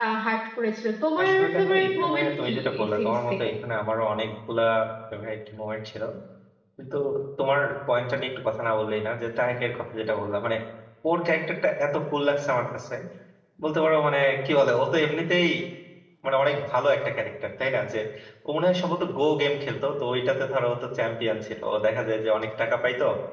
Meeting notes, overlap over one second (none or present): present